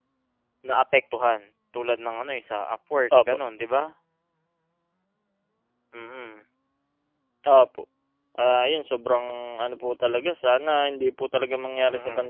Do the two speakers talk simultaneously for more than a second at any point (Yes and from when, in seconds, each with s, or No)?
No